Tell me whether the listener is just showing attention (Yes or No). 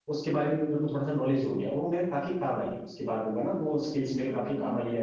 No